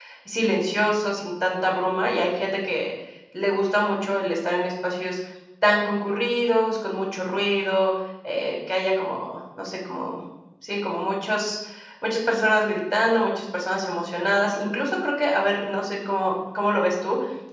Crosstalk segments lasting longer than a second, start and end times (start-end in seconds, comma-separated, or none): none